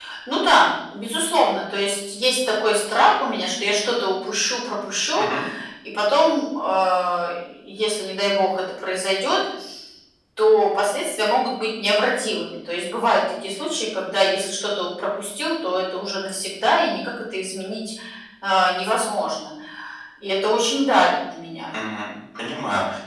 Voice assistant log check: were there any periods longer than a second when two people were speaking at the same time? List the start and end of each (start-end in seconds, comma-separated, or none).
none